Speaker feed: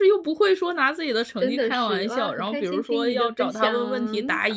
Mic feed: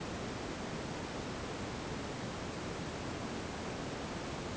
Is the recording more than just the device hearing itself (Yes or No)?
No